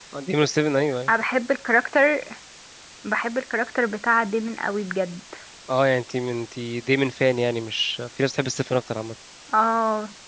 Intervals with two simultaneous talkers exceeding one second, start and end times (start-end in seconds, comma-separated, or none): none